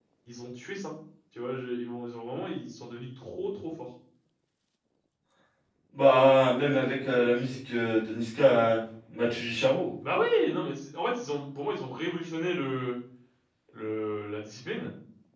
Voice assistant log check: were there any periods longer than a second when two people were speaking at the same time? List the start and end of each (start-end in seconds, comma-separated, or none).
none